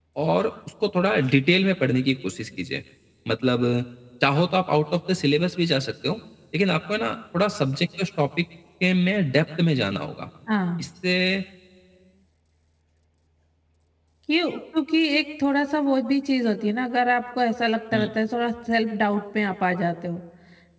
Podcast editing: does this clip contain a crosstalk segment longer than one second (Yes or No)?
No